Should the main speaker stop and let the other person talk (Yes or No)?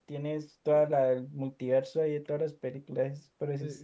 Yes